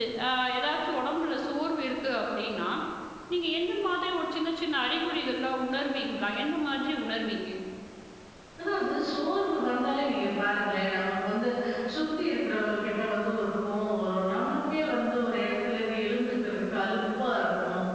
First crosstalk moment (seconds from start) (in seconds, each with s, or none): none